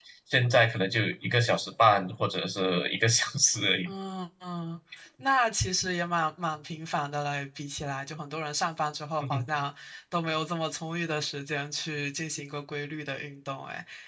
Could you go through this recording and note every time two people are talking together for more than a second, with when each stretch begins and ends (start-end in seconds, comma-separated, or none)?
none